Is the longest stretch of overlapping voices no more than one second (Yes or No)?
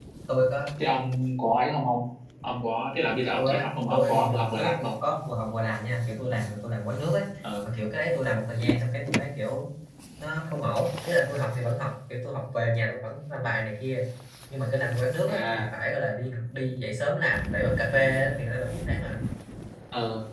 No